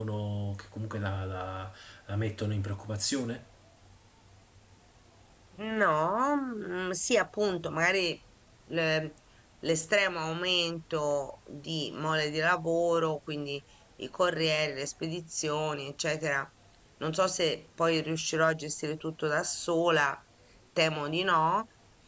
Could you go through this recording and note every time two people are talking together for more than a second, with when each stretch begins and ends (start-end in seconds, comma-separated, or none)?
none